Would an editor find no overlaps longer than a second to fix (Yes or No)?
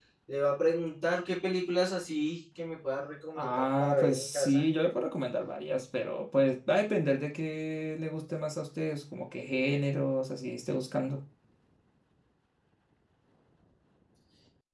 No